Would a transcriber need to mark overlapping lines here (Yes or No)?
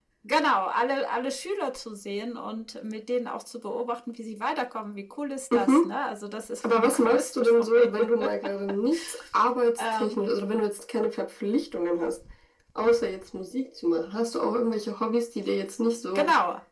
Yes